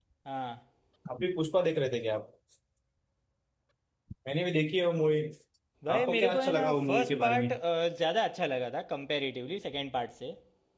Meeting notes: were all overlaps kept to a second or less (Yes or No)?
No